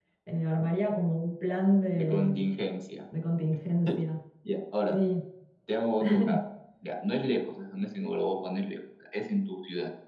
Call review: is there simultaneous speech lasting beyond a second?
No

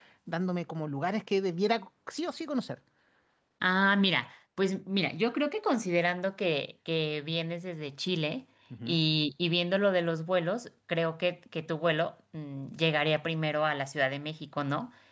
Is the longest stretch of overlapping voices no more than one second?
Yes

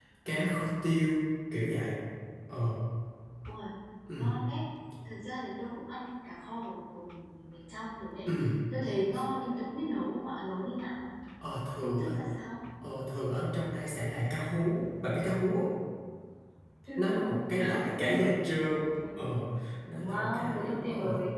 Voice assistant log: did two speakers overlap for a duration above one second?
Yes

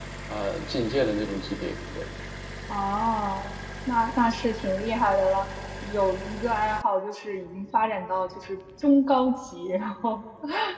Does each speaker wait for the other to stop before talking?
Yes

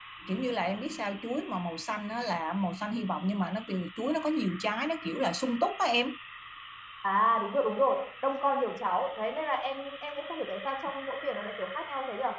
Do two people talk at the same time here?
No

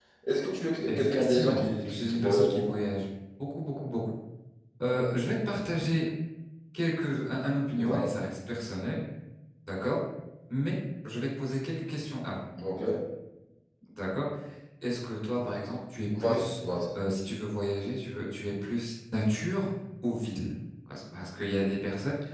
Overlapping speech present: Yes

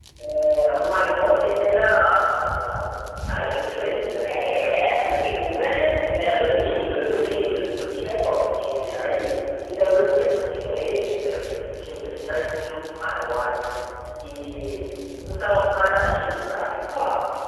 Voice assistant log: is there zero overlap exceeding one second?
No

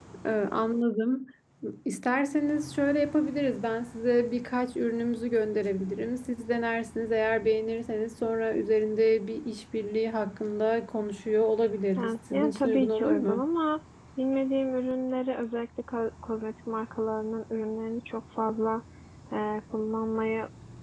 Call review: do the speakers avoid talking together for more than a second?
No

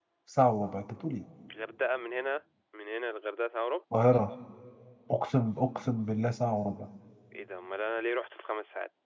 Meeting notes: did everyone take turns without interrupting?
Yes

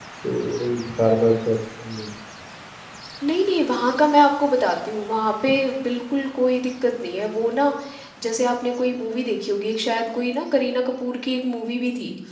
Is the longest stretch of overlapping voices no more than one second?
Yes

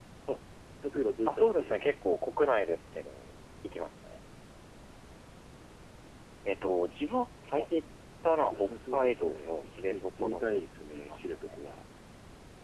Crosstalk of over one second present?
Yes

